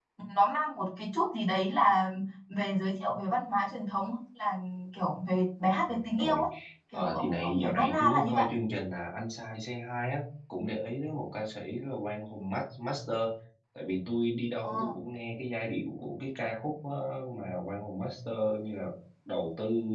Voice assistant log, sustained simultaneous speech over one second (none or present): present